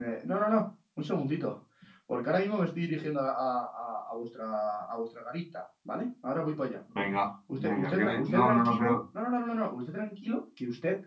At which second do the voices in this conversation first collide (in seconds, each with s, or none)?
7.6 s